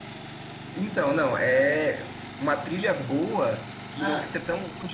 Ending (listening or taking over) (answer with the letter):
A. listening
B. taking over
A